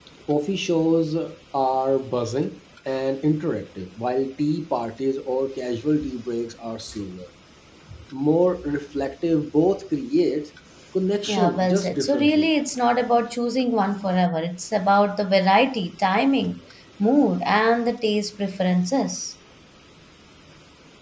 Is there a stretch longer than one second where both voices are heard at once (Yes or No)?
Yes